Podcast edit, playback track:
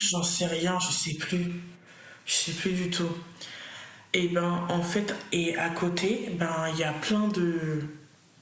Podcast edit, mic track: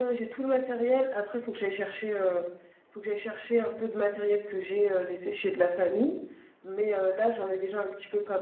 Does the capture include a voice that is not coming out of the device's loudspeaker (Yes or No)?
Yes